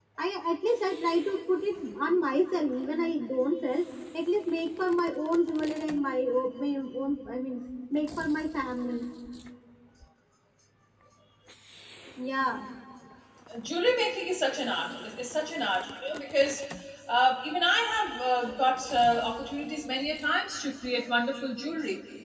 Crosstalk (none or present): none